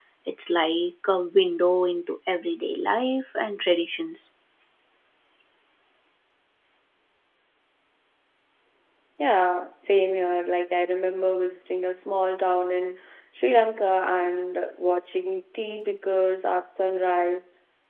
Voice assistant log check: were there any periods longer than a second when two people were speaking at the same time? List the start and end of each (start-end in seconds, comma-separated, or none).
none